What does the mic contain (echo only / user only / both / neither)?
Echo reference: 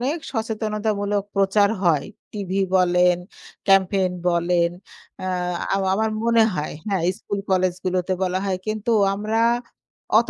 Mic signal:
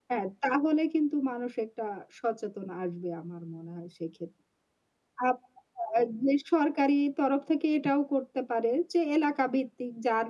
user only